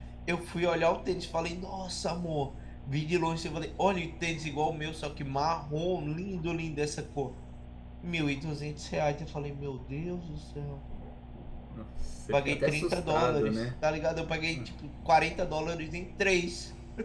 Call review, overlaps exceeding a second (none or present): present